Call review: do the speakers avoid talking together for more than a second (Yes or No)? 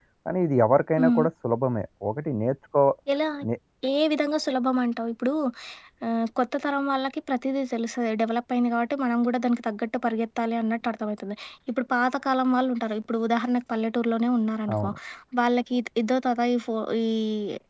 Yes